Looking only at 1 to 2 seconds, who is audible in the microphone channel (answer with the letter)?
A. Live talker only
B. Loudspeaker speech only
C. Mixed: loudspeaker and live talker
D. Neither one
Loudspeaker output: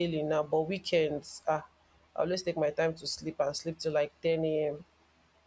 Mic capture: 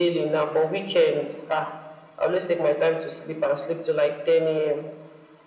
B